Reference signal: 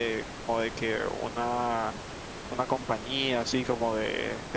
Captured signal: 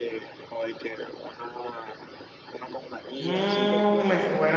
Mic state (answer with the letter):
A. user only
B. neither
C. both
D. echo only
C